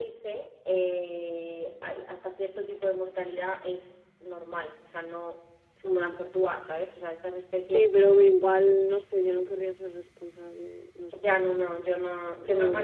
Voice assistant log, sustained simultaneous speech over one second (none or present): none